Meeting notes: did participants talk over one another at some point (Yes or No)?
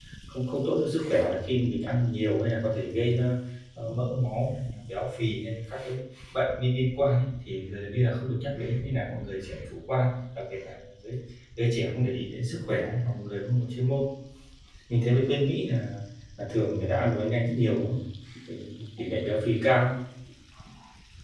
No